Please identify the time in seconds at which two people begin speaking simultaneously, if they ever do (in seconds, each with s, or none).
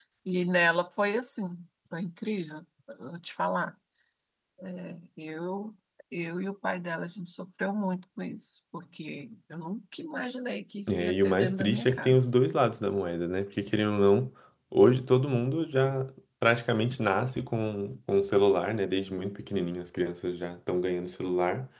10.9 s